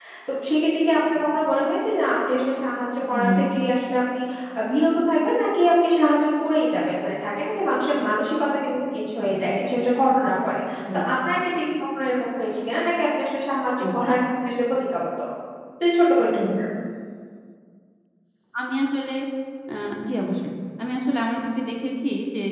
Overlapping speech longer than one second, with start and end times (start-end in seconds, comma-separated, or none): none